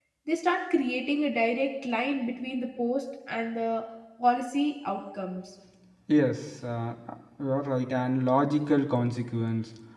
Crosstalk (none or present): none